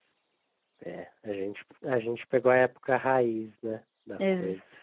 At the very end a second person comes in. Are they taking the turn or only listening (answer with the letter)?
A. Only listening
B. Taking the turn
B